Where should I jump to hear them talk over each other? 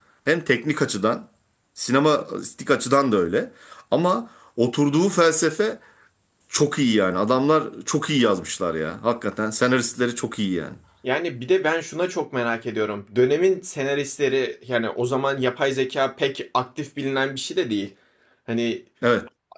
none

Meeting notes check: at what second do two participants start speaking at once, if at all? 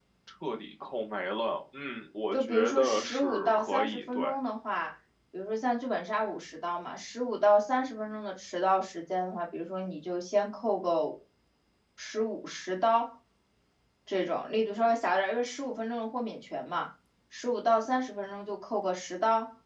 2.3 s

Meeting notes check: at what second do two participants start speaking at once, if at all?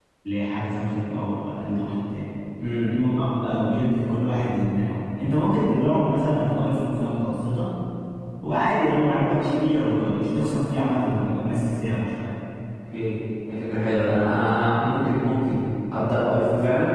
none

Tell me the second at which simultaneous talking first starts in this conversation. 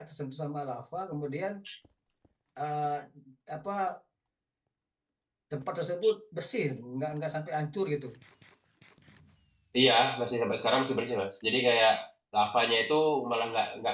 none

